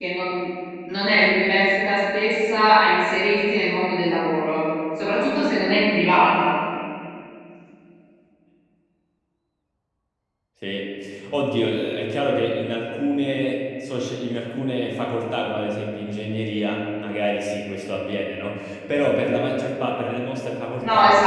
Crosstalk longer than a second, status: none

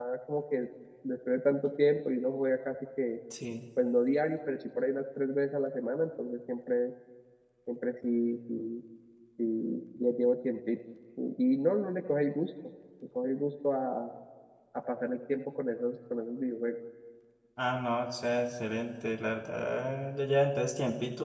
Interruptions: none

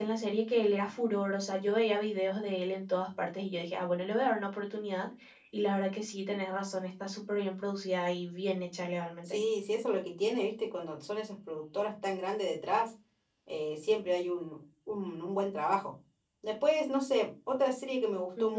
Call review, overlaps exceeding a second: none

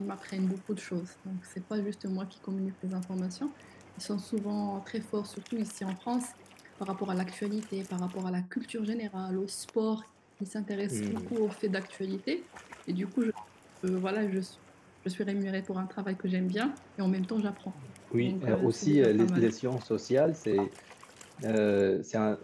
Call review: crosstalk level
present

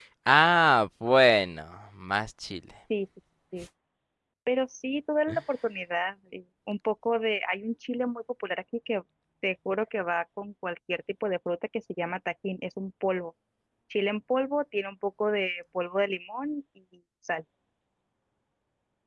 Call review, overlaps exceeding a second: none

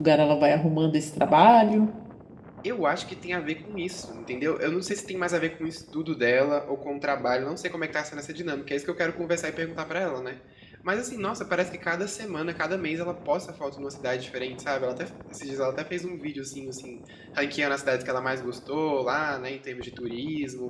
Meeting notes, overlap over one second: none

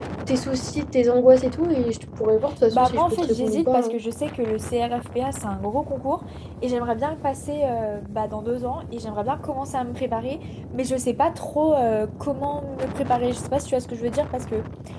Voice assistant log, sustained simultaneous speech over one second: present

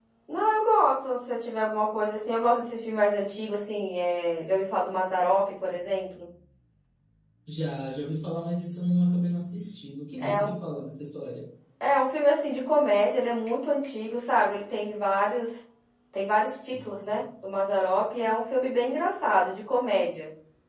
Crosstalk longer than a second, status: none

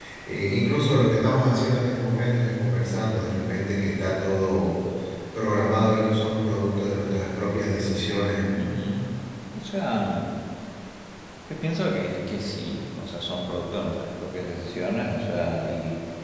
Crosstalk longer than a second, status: none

